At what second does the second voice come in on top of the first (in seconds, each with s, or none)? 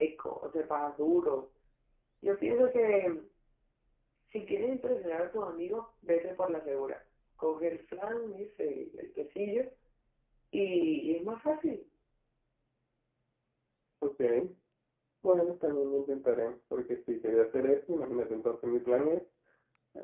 none